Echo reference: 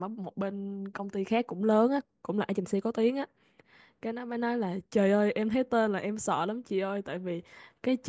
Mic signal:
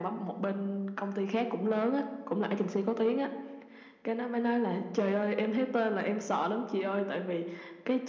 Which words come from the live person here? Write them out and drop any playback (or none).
none